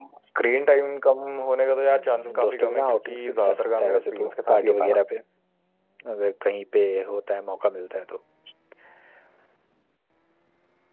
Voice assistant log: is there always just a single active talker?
No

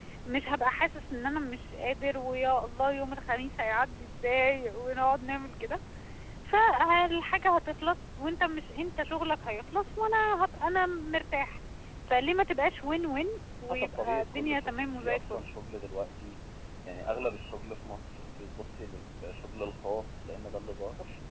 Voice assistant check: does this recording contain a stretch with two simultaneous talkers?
Yes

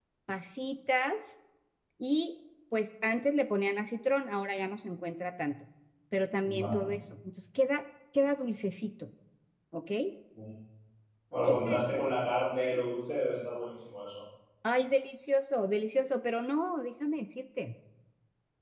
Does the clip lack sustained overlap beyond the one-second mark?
Yes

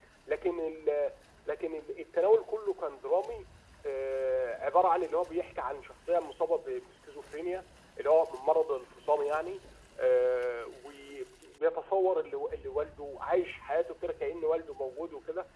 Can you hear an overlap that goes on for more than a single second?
No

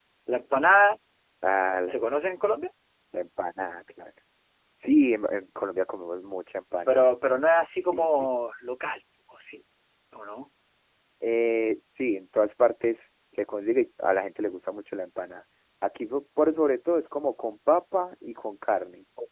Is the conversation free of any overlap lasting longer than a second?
Yes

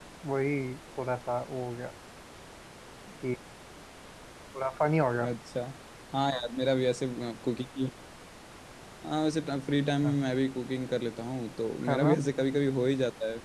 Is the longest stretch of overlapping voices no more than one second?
Yes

